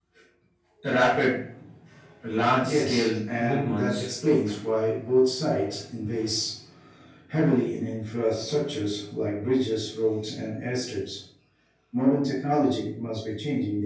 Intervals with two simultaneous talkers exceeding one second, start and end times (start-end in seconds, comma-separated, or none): 2.6-4.1